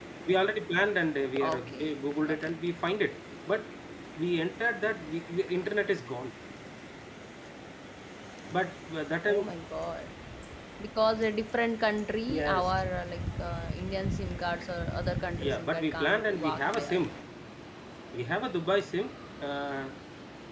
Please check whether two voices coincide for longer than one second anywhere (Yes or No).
Yes